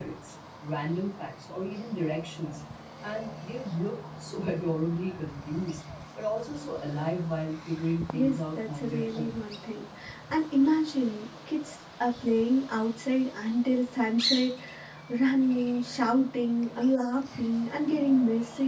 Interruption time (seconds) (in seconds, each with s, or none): 8.1 s